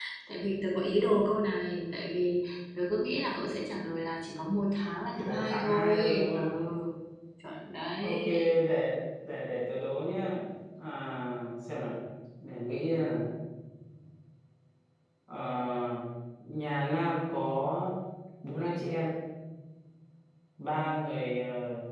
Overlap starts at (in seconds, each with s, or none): 5.2 s